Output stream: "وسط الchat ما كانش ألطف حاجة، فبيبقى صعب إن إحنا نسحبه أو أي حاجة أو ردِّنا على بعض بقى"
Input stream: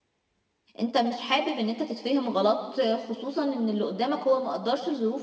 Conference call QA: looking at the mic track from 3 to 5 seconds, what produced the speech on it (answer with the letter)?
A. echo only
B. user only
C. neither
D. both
B